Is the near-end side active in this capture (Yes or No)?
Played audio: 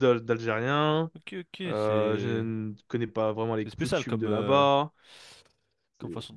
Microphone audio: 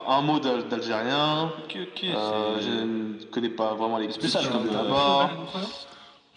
Yes